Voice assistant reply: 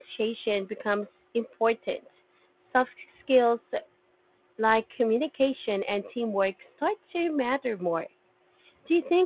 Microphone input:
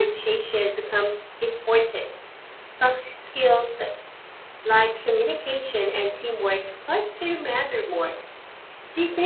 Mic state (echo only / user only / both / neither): echo only